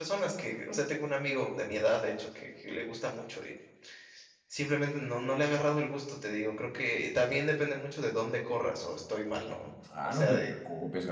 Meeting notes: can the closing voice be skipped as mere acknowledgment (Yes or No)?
No